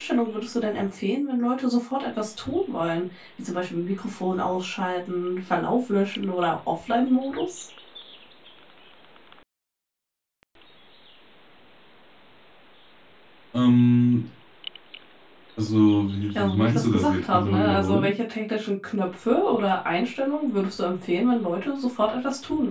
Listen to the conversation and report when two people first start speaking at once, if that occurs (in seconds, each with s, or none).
16.4 s